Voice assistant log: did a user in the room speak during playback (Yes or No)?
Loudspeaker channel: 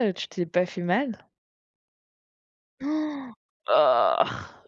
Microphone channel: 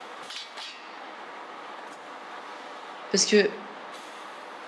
Yes